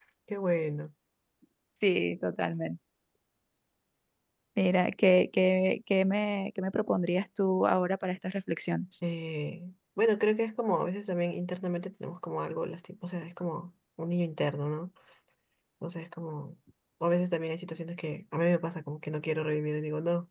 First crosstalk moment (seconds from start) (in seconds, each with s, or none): none